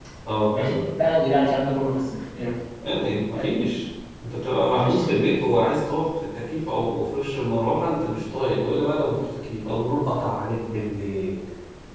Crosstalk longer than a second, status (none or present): none